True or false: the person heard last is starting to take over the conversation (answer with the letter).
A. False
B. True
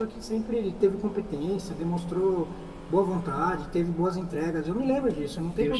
B